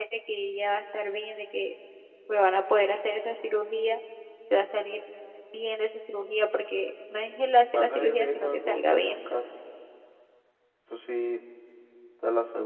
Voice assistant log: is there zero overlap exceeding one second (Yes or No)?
No